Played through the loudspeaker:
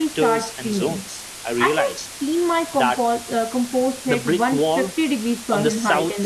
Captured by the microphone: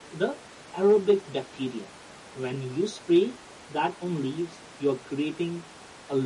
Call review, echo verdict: none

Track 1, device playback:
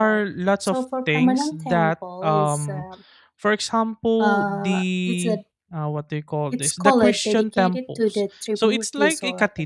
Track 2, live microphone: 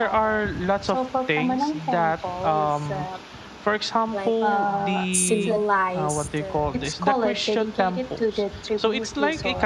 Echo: present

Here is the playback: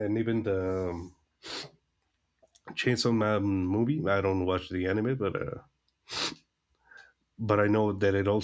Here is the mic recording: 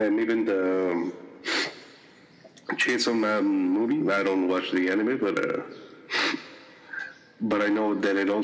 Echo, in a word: present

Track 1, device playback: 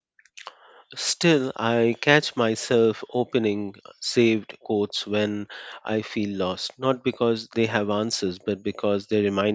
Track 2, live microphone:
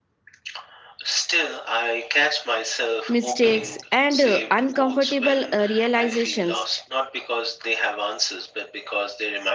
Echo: present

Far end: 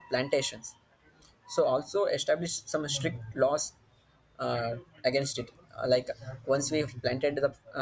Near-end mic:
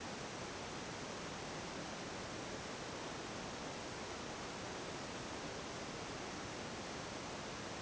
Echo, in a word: none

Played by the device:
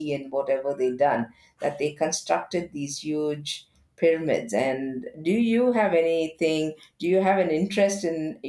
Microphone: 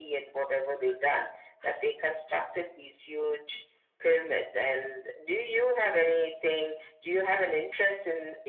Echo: present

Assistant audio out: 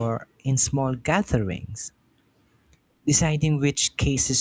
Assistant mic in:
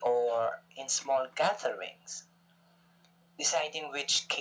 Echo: present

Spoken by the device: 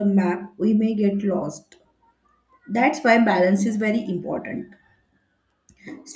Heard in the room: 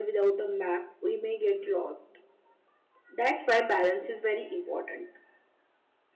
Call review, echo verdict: present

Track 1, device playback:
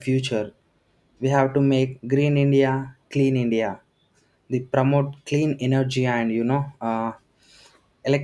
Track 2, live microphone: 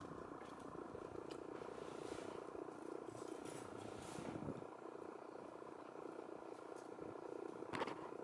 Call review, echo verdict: none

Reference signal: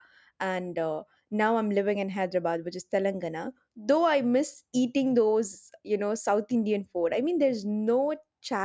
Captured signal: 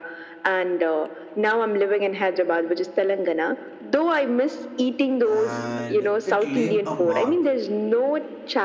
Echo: present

